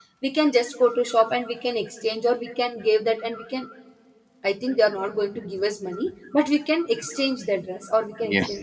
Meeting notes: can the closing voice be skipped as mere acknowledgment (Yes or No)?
No